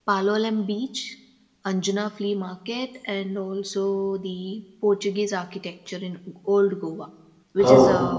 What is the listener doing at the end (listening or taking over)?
listening